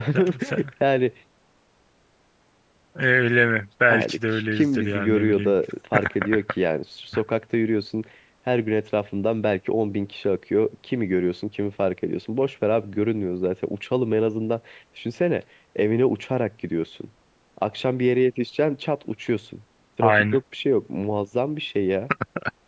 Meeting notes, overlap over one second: present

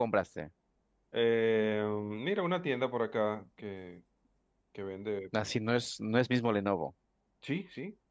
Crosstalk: none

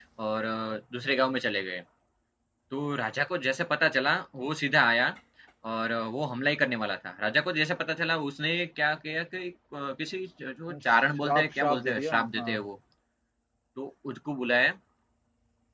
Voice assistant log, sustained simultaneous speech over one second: present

